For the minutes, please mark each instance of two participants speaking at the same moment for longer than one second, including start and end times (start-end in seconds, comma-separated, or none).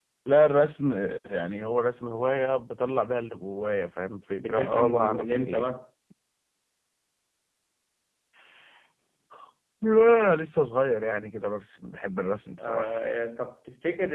4.4-5.7